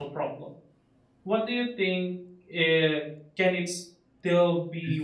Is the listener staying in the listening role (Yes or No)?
No